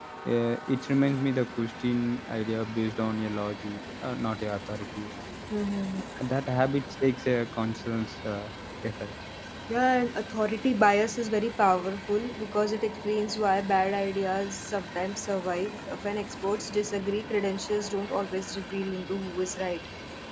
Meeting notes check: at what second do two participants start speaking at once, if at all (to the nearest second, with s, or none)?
none